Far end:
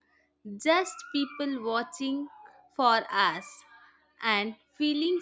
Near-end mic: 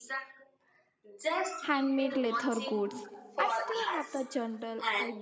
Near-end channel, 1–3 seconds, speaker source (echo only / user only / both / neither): both